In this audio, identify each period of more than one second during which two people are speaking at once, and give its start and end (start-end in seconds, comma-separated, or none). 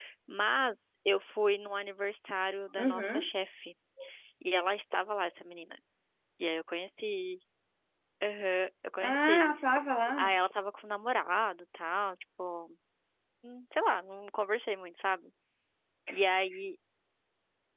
none